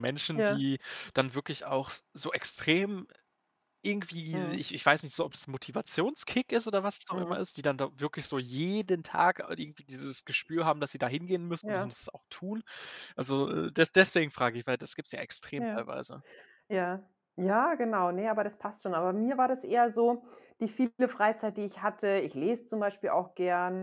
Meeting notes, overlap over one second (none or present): none